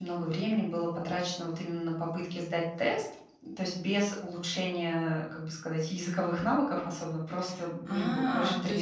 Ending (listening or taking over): taking over